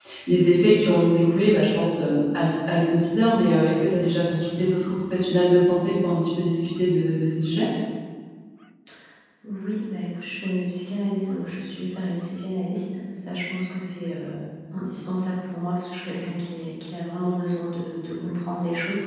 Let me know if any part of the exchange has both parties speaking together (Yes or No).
No